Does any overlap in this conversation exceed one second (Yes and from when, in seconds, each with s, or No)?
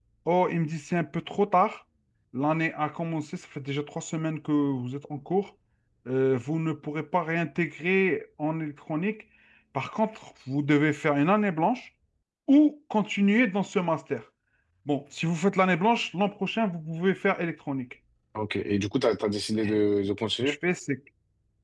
No